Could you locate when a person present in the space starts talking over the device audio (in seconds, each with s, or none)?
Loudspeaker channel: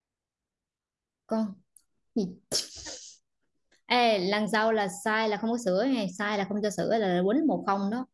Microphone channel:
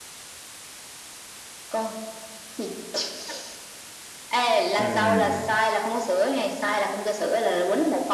4.8 s